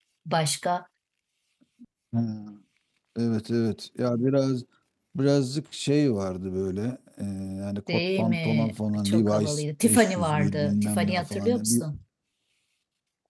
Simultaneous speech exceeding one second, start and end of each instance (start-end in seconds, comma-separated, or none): 7.9-11.8